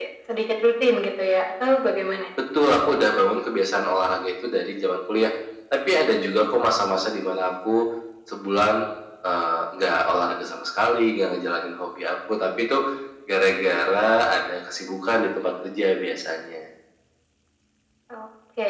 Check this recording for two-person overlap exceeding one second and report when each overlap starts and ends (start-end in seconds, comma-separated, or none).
none